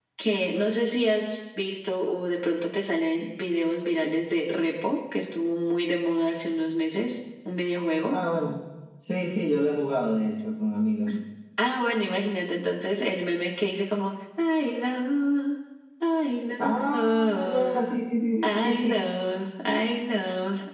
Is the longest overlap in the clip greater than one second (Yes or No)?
Yes